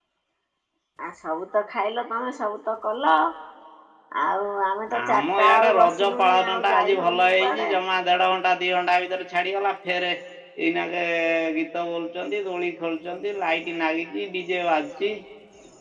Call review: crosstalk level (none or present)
present